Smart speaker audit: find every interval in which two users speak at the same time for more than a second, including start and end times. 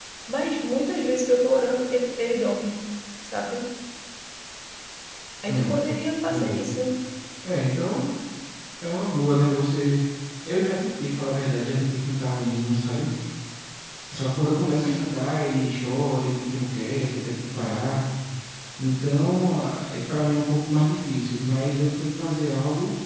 none

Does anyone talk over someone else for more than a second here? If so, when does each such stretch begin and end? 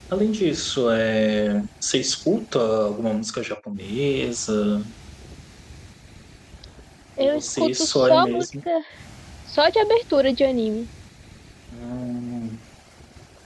7.2-8.5

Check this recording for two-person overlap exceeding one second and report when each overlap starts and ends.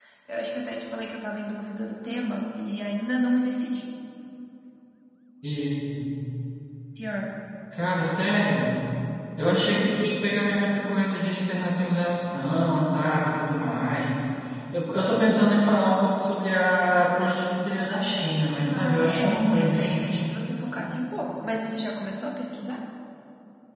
18.6-20.2

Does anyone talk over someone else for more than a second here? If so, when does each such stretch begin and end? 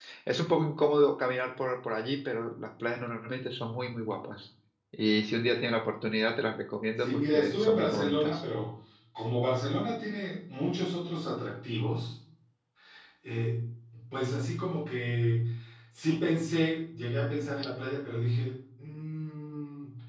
7.0-8.4

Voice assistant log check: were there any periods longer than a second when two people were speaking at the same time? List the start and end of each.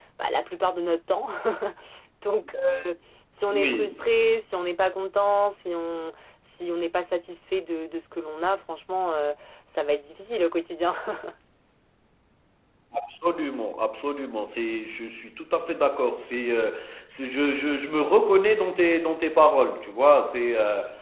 none

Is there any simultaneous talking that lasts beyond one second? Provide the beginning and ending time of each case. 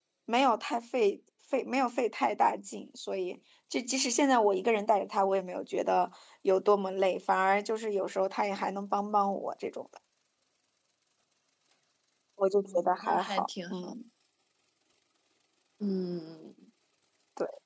12.6-13.9

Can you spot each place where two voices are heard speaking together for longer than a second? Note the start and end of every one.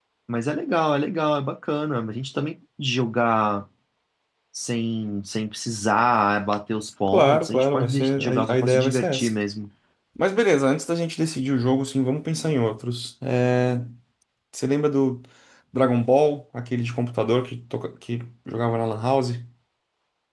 7.1-9.3

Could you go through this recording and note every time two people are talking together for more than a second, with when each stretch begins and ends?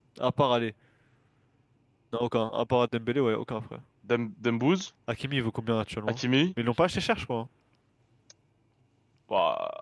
none

